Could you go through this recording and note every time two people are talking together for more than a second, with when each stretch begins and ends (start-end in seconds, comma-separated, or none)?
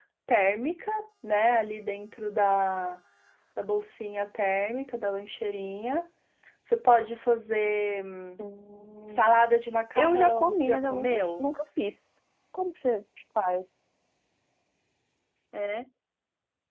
10.0-11.5